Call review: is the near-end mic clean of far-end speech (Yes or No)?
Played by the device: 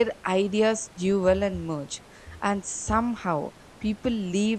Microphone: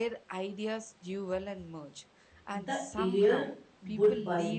No